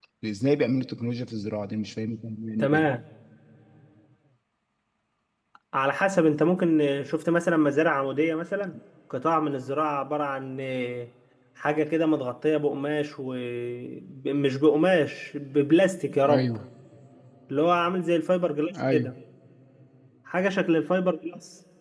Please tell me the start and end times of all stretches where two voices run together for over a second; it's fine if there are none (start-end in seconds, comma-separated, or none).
none